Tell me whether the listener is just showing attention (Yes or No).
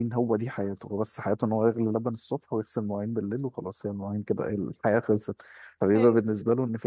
Yes